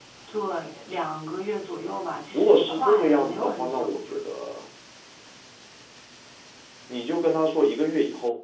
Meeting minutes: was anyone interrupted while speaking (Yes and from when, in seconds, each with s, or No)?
Yes, from 2.3 s